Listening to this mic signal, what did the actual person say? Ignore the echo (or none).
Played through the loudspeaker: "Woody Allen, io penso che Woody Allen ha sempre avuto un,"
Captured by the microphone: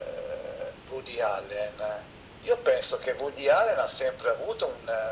none